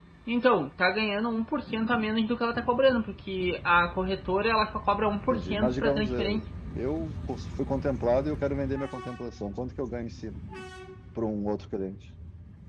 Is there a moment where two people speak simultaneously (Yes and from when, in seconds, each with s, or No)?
Yes, from 5.2 s